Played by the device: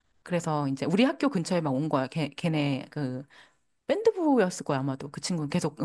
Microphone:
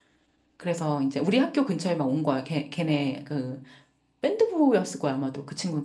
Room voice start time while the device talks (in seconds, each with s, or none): none